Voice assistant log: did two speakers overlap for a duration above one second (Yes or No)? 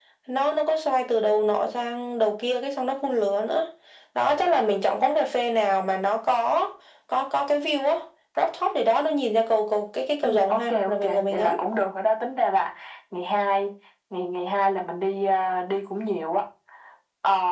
Yes